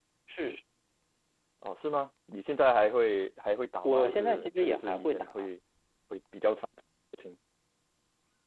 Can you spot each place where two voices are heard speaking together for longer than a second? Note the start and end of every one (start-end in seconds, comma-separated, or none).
3.8-5.5